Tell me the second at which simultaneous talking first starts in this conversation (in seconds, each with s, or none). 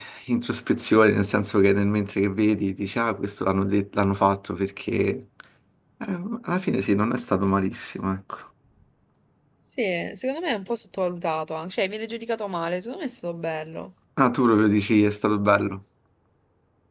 none